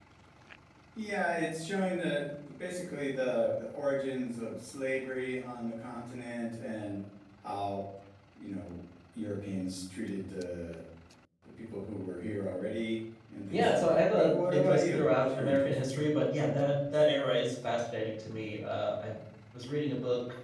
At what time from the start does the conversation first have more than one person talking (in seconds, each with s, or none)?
13.5 s